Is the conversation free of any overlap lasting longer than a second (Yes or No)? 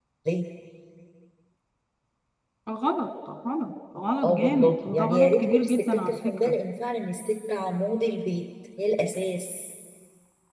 No